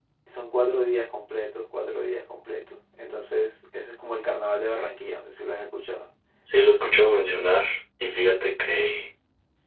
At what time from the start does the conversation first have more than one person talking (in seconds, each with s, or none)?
none